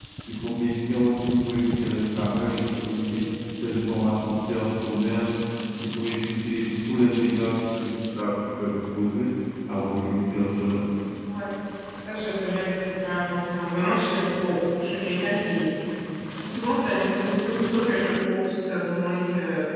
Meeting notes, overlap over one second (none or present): none